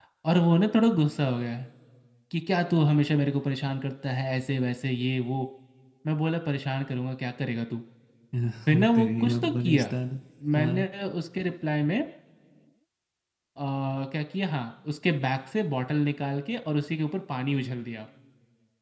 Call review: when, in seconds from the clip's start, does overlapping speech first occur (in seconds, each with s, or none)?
8.7 s